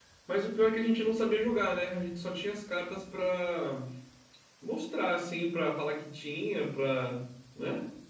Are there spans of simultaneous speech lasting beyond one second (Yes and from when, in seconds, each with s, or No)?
No